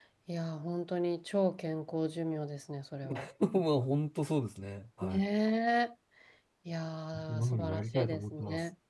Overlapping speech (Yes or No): Yes